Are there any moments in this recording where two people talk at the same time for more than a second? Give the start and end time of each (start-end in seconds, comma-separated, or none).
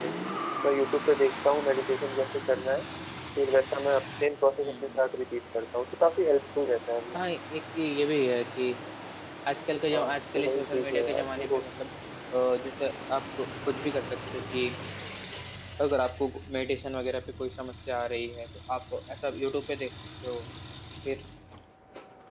9.9-11.6